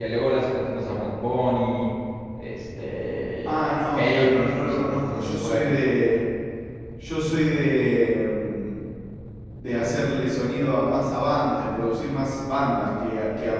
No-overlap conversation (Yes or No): No